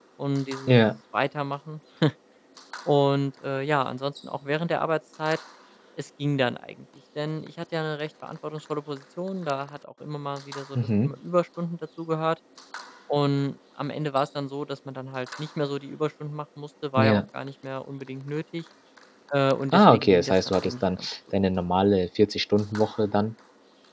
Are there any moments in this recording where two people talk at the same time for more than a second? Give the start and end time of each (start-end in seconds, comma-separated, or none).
19.7-21.1